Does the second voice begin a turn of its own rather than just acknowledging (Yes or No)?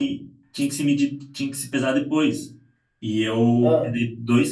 No